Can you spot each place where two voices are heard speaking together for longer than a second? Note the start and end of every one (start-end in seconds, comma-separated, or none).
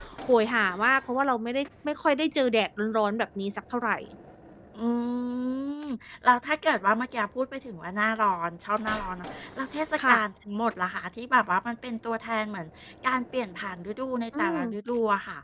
none